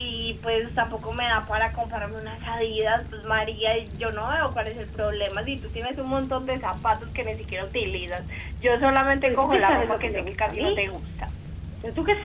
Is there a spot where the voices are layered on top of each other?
Yes, from 9.2 s

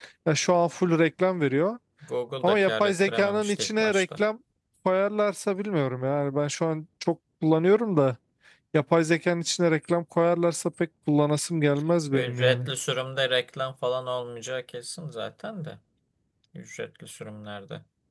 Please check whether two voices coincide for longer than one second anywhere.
Yes, from 2.4 s

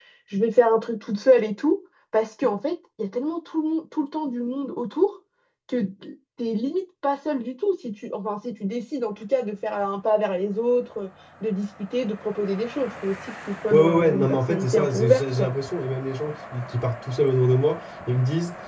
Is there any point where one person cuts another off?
Yes, from 13.7 s

